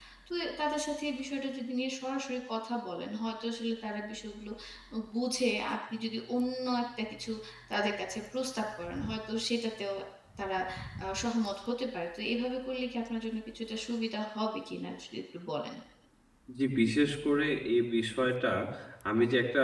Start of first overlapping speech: none

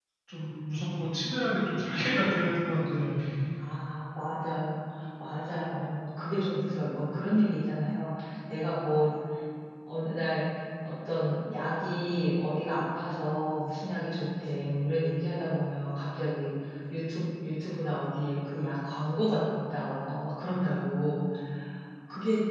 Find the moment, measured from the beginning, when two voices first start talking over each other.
none

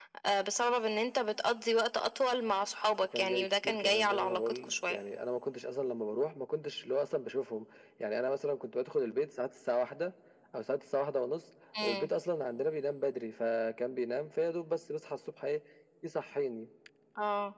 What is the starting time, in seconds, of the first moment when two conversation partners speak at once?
3.2 s

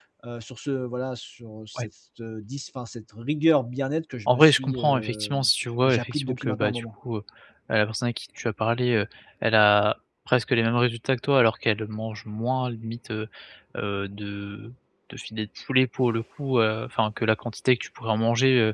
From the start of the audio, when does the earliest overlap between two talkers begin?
4.3 s

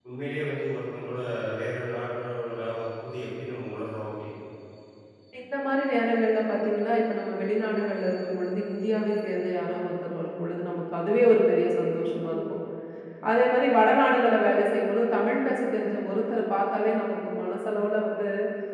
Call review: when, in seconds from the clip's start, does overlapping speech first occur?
none

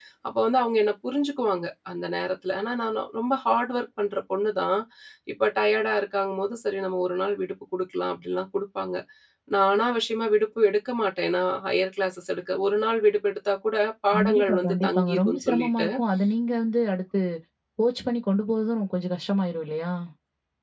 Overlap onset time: 14.1 s

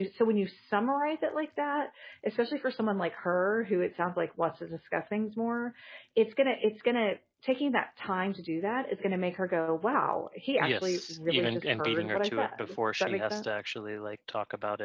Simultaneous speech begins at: 10.6 s

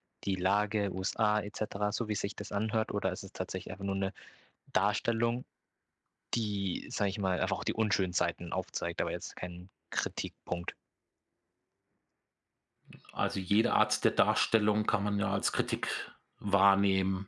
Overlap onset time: none

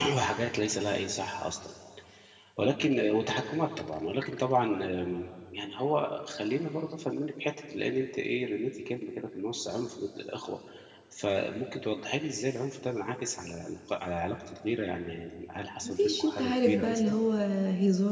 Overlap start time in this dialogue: 15.8 s

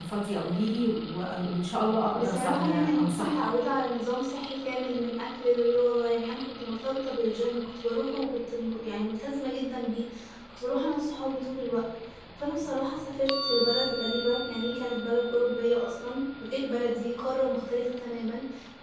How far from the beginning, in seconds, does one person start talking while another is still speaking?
2.1 s

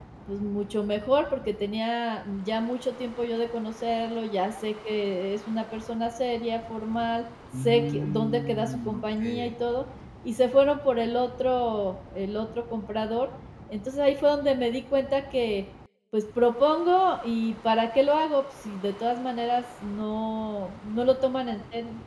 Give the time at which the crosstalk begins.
7.5 s

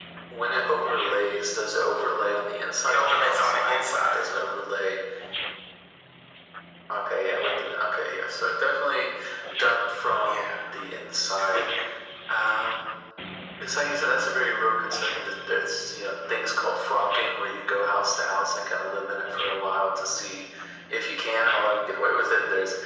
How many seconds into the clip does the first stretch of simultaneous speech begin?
2.9 s

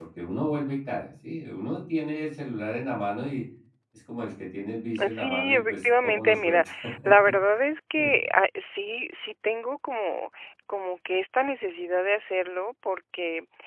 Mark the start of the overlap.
5.0 s

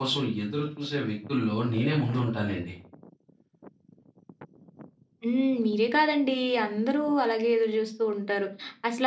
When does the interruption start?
none

